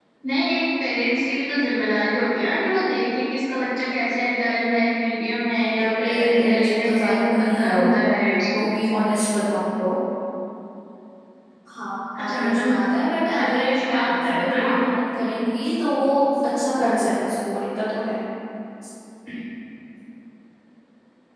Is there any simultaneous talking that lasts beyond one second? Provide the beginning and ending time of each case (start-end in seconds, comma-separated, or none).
5.5-7.9, 13.3-14.7